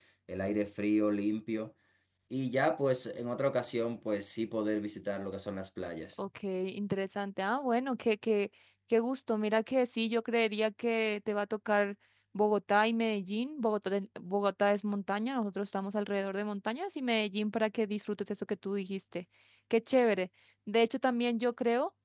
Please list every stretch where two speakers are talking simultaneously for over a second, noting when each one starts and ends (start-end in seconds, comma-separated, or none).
none